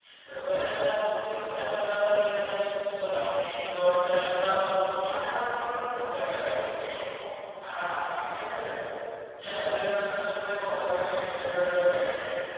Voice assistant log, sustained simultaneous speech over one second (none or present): none